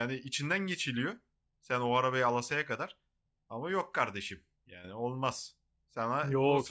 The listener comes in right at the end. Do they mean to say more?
Yes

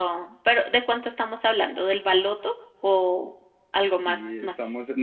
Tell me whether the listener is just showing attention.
No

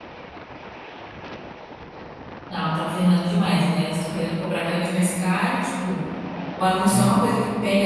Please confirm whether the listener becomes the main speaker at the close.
No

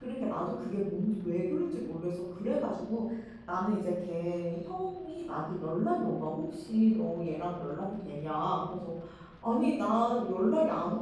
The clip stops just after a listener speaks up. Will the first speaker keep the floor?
Yes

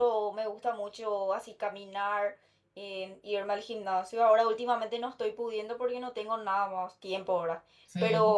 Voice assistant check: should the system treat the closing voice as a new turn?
No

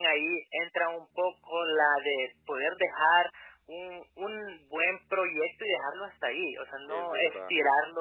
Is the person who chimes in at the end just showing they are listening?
Yes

